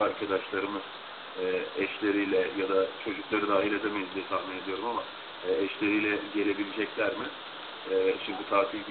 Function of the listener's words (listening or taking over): listening